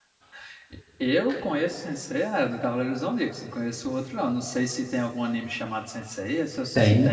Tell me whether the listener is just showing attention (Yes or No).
No